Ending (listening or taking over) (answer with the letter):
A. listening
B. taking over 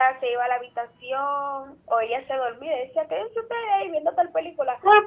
B